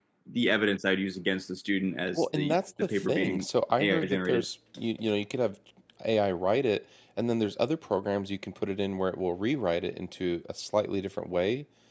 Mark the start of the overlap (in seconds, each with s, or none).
2.1 s